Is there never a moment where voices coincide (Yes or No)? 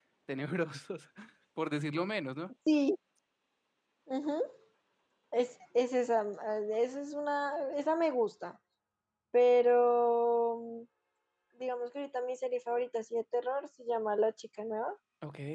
Yes